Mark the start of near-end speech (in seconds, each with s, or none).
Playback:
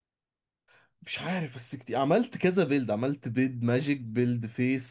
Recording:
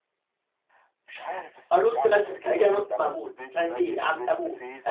1.7 s